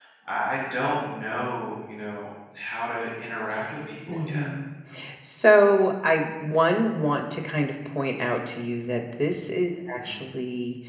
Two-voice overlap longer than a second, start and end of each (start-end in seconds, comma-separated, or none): none